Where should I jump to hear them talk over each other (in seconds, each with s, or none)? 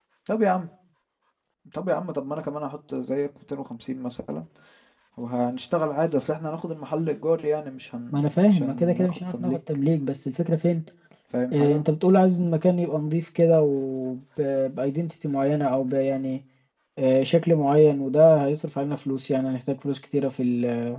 8.1 s